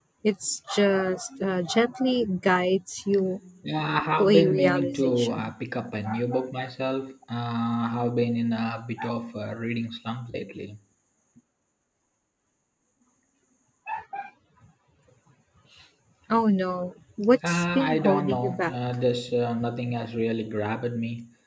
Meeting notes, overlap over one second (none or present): present